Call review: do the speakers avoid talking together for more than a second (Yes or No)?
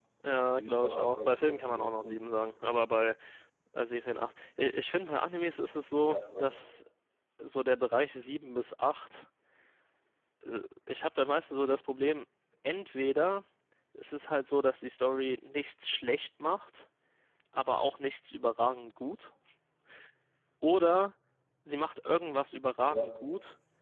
No